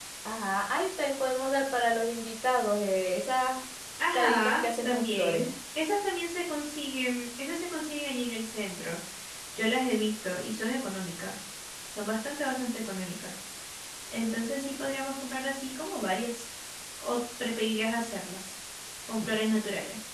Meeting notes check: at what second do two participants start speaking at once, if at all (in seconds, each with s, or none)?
4.1 s